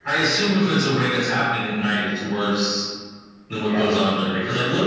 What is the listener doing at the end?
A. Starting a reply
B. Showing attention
B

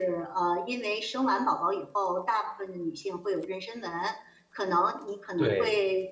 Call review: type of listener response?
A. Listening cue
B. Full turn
A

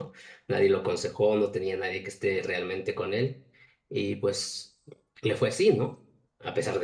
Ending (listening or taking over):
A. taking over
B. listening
B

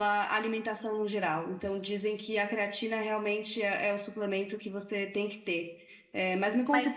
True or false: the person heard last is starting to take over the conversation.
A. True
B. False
B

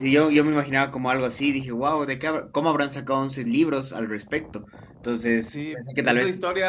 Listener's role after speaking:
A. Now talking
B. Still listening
A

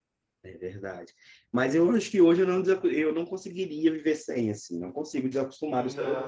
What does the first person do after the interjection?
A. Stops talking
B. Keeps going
B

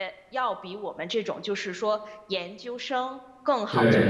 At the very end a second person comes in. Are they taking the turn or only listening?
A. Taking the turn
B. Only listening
B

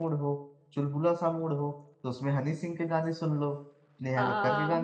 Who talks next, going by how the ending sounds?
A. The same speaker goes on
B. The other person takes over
B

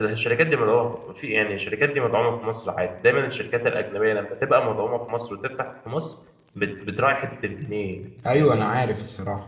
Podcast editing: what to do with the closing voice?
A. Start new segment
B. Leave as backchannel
A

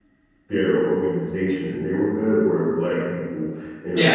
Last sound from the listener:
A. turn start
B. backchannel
B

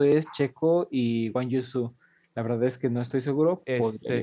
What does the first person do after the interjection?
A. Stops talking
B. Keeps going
A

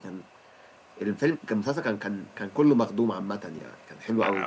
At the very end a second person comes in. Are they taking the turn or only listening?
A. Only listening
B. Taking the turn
B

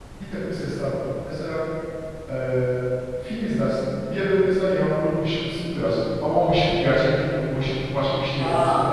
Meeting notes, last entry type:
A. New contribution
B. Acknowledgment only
A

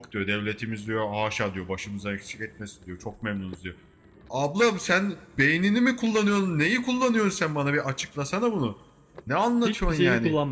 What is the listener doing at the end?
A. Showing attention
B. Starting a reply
B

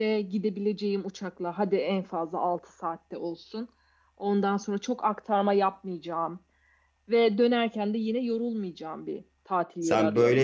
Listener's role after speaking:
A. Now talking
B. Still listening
A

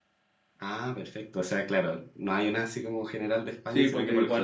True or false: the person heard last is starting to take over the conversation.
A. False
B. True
B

